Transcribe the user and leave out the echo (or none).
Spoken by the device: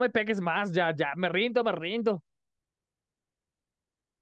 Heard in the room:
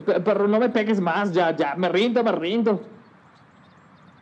none